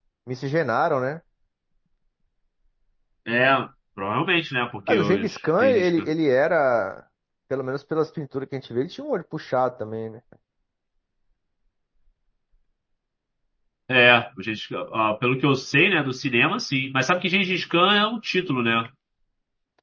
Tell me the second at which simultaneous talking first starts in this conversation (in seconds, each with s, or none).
4.9 s